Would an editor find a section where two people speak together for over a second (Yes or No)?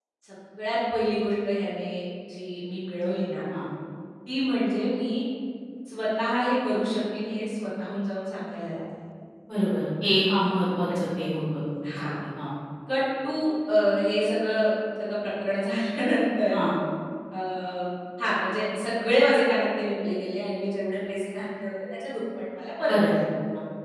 No